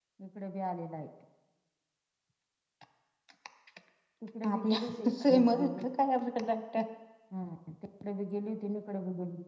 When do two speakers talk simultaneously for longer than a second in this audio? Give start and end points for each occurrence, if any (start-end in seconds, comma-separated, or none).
4.5-5.8